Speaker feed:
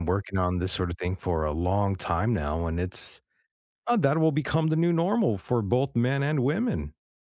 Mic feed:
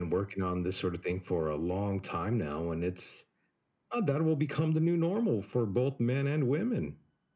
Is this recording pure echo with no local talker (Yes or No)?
Yes